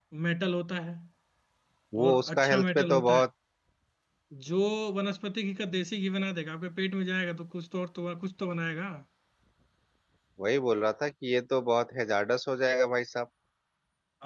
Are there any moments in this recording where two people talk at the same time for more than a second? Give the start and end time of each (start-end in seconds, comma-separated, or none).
2.0-3.2